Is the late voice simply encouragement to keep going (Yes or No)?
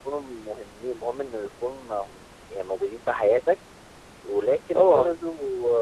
Yes